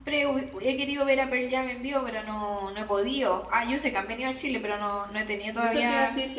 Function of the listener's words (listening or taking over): taking over